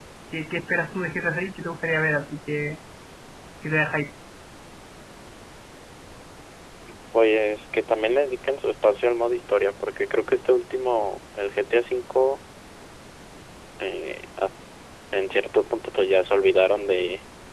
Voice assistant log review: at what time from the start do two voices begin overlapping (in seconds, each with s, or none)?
none